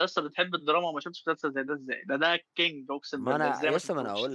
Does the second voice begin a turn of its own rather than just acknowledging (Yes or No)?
Yes